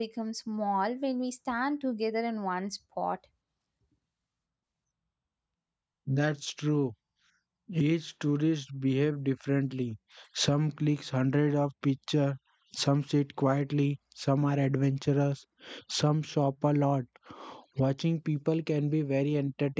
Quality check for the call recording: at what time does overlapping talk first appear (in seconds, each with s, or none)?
none